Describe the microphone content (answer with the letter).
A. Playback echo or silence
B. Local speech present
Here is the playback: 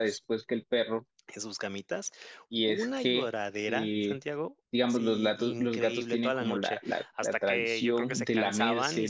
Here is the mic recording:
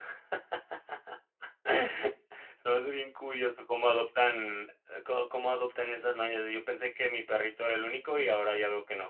B